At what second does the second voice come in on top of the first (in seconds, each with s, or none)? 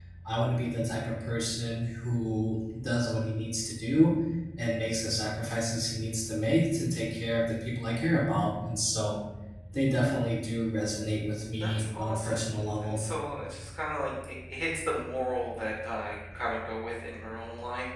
11.6 s